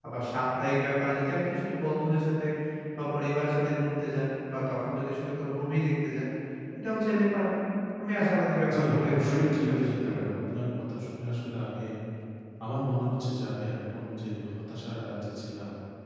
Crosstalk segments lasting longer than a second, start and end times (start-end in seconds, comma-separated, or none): 8.7-10.2